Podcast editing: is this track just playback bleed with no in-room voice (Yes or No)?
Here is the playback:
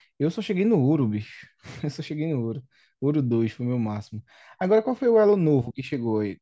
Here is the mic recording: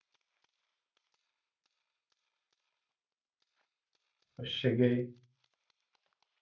No